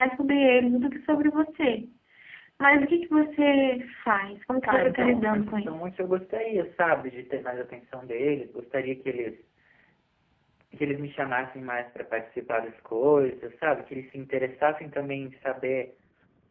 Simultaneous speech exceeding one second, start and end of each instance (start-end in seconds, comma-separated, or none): 4.7-6.0